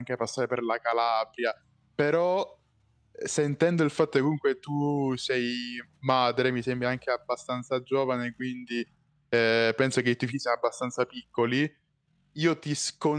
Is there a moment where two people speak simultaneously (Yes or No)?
No